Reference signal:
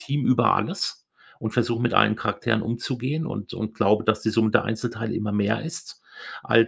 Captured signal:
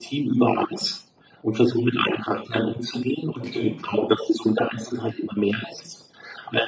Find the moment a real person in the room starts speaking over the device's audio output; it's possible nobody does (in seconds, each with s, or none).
3.4 s